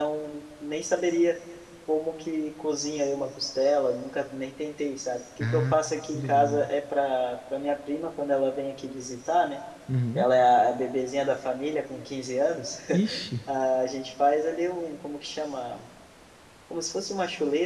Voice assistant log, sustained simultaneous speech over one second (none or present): none